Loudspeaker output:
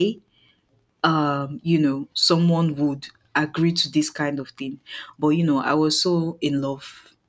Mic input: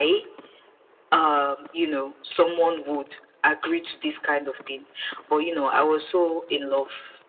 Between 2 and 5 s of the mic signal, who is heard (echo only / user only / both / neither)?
echo only